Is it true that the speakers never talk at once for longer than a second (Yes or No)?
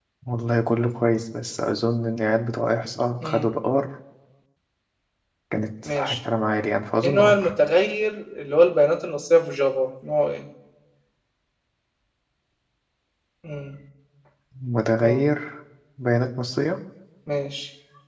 Yes